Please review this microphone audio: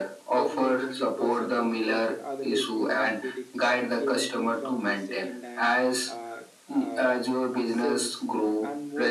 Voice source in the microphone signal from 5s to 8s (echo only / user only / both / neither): both